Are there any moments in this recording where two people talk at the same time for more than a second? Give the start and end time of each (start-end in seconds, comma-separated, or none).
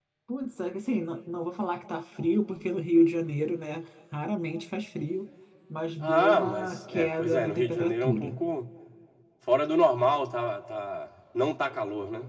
6.0-8.4